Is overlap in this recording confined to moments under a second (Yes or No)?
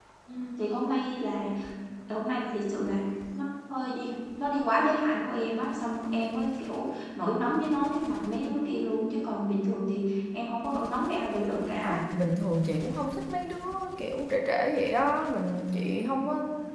Yes